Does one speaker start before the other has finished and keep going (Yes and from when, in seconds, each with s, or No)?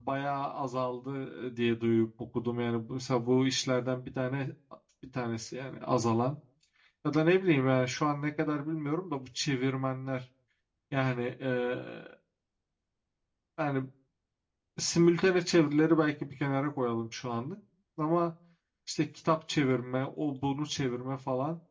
No